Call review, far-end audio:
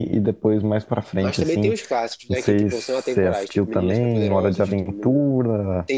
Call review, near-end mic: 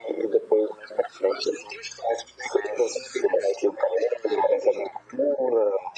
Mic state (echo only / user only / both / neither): echo only